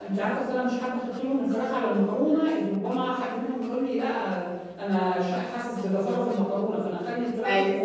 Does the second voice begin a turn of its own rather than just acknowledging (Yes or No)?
No